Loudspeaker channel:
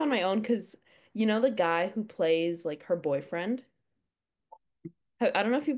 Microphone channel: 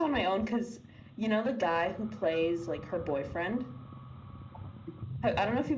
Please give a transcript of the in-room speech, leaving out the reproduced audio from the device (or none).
none